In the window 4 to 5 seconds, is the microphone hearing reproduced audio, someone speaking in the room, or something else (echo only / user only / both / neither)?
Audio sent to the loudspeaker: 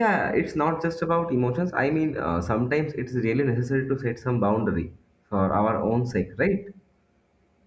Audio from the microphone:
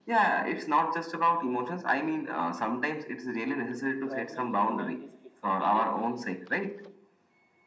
both